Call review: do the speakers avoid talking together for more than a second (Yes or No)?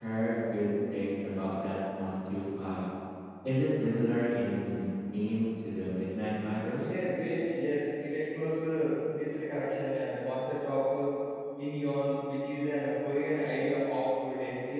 Yes